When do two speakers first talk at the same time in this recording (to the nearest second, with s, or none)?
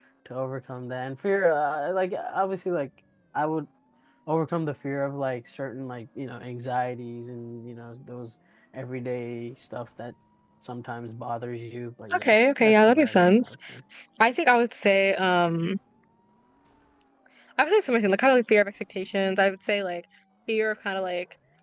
12 s